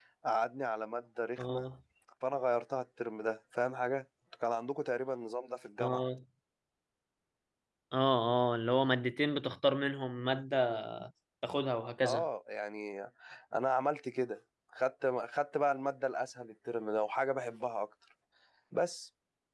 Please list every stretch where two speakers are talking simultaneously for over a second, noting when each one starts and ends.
none

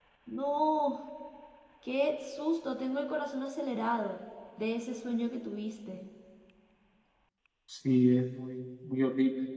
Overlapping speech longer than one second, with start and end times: none

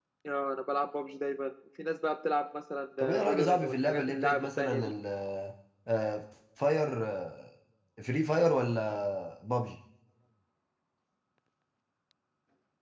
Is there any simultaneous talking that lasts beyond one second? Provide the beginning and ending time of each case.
3.2-4.9

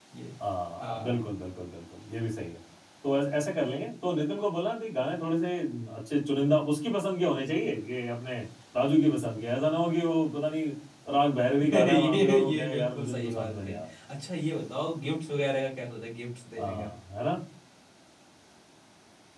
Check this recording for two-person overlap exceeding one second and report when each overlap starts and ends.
11.7-13.8

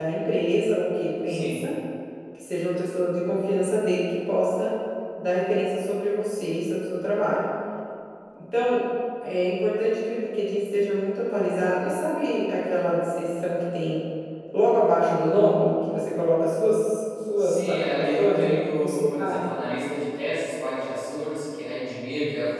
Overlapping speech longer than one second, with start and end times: 17.4-19.4

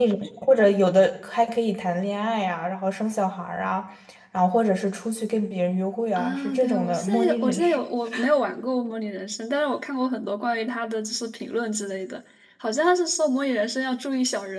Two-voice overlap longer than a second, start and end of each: 6.2-7.9

